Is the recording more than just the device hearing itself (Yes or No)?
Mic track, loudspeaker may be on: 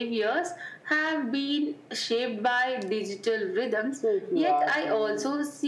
Yes